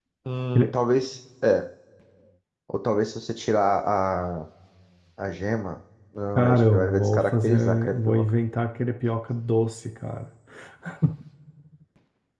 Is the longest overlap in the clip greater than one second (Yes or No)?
Yes